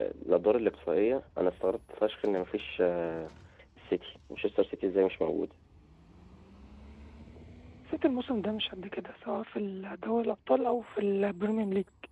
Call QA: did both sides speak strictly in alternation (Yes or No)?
Yes